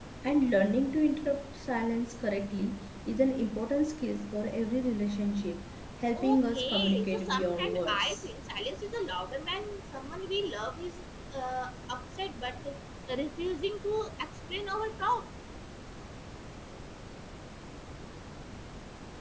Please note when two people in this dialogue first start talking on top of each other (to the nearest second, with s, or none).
6 s